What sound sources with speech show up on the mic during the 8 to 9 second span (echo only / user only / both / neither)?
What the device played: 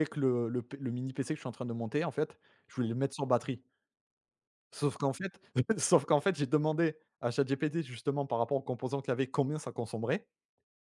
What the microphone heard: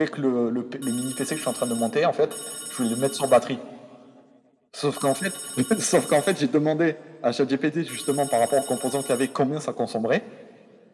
echo only